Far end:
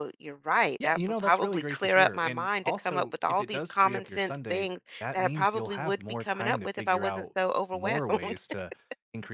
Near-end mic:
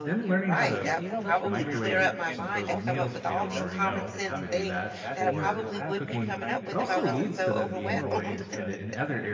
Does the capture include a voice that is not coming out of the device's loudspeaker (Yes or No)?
Yes